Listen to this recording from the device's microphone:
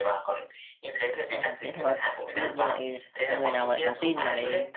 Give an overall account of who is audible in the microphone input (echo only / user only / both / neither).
both